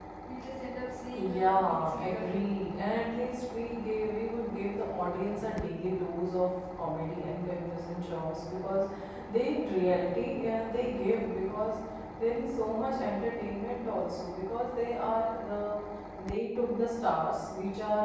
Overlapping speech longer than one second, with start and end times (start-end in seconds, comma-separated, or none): 1.1-2.6